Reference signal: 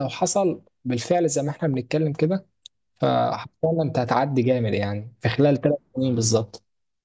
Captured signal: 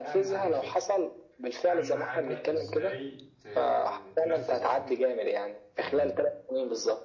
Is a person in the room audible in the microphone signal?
Yes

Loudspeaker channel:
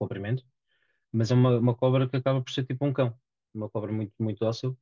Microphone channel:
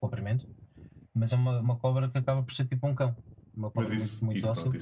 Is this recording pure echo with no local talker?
No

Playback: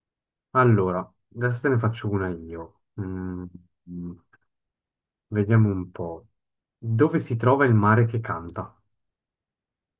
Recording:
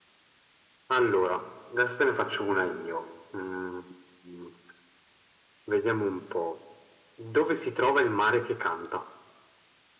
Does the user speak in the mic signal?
No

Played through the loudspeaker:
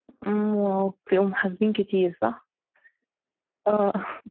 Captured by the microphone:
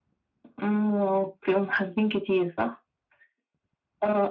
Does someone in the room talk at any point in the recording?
No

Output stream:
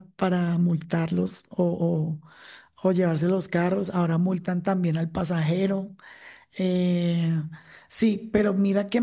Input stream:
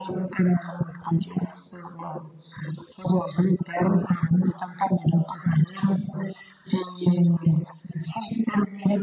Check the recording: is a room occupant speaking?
No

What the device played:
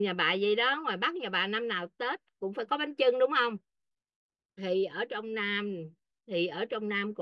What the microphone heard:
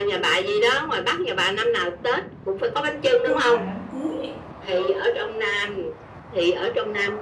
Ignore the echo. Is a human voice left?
Yes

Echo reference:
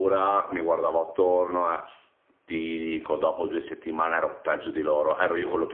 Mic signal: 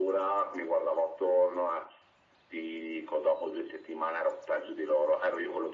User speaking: No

